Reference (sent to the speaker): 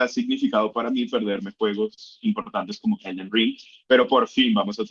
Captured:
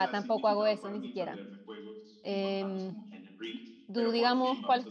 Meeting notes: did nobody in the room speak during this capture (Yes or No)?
No